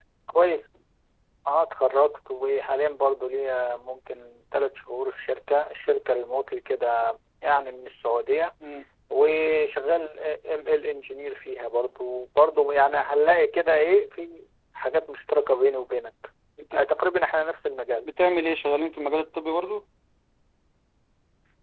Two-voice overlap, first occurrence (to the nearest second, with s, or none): none